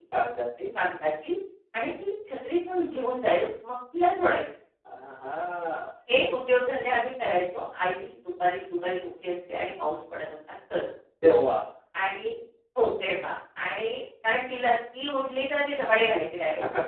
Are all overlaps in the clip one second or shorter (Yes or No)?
Yes